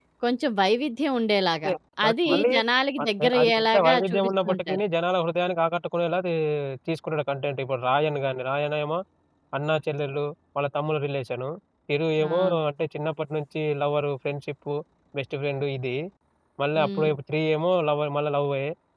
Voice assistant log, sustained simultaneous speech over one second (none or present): present